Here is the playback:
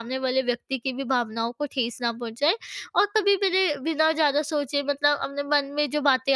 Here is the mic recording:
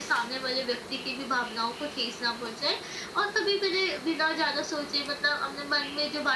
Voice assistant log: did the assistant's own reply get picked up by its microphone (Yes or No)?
Yes